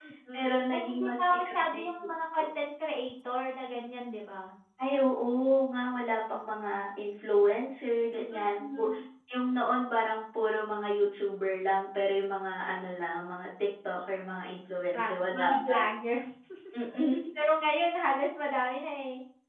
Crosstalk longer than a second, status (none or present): present